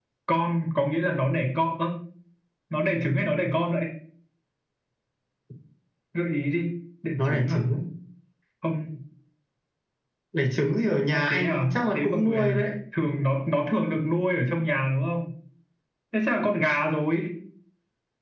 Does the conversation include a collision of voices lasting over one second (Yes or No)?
Yes